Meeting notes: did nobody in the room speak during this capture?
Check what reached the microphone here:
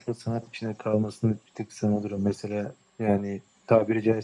Yes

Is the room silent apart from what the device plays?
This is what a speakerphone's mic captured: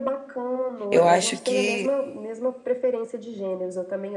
No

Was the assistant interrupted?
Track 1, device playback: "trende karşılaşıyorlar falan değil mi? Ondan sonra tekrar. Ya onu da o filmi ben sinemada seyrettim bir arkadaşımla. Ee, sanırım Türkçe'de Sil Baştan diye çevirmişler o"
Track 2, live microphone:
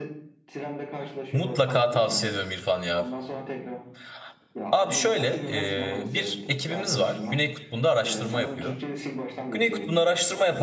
Yes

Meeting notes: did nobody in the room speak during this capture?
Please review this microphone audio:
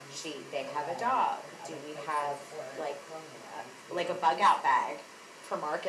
No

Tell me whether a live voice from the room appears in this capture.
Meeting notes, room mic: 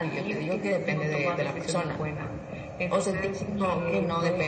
No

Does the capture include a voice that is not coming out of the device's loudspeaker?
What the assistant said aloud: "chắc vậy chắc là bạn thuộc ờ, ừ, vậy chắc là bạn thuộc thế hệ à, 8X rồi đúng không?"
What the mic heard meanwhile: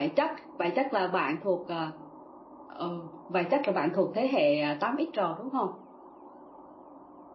No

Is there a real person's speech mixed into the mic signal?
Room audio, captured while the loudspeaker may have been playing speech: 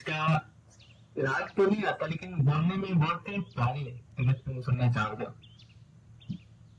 No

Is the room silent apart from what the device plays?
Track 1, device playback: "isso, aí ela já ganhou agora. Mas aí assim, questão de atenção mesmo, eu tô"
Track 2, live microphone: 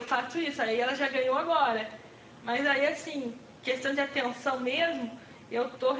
Yes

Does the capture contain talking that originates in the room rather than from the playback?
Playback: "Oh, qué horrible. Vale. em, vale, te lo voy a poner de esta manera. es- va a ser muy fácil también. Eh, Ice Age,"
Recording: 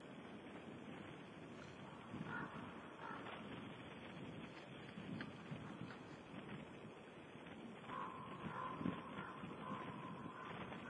No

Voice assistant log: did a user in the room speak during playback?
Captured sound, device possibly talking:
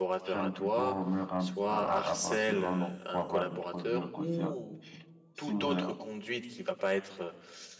Yes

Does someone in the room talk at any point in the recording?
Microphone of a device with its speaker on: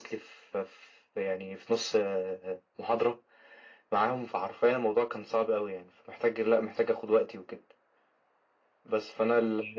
No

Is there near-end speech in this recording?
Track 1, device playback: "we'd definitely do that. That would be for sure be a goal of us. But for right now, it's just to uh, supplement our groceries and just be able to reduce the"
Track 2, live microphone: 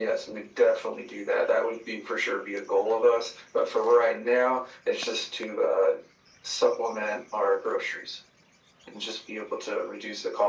No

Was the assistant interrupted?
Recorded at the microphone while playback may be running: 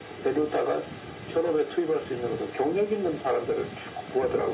No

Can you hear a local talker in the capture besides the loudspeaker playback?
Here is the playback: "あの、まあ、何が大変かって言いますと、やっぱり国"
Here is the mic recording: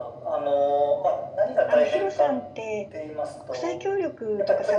Yes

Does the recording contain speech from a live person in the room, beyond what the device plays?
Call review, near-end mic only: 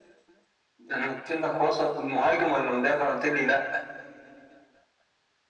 No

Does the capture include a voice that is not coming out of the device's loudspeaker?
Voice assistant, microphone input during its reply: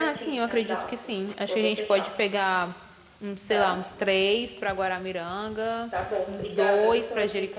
Yes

